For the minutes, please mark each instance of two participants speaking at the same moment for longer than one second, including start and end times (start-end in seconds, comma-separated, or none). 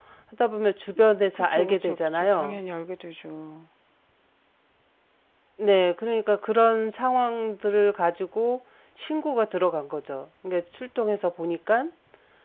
1.3-2.6